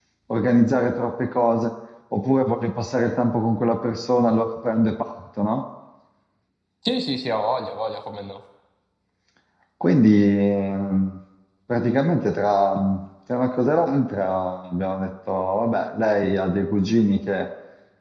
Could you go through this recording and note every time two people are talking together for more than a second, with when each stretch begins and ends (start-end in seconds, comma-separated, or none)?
none